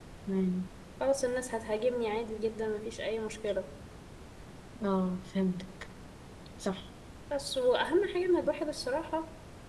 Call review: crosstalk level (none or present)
none